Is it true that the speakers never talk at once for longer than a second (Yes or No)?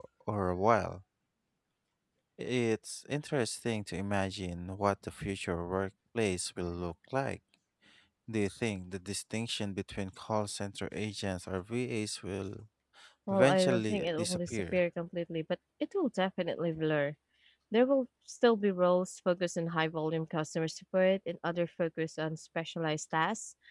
No